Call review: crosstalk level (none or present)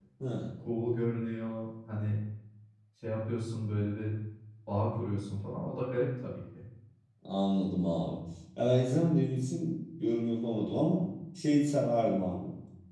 none